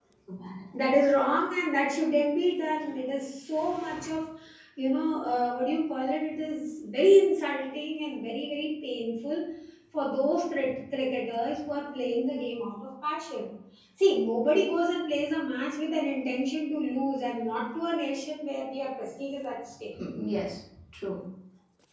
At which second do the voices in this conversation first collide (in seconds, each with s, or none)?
none